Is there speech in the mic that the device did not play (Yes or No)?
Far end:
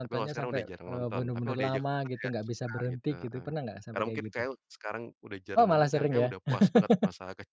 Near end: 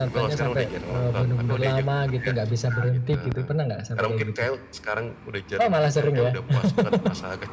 No